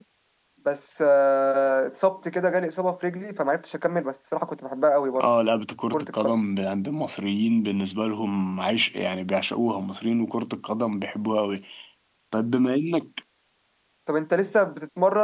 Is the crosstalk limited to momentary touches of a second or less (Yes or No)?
Yes